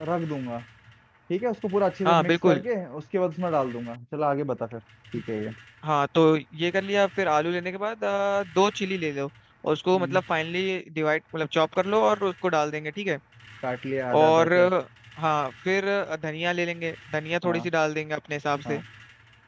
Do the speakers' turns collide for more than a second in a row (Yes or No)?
No